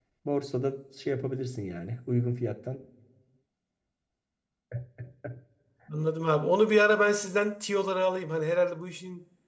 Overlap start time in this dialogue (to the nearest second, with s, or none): none